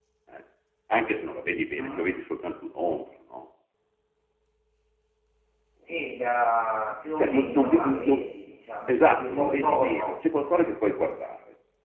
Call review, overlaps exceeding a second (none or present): present